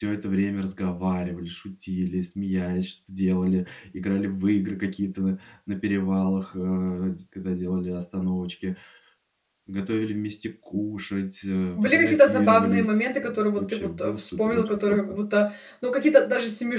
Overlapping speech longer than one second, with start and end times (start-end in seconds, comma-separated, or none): 11.8-15.2